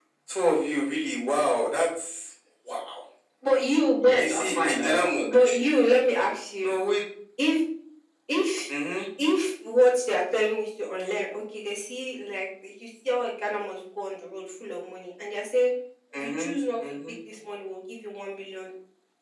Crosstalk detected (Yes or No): Yes